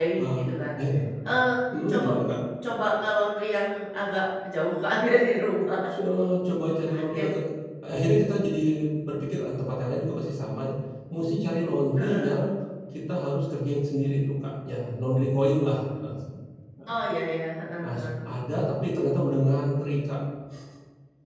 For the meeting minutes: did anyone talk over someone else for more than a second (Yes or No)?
No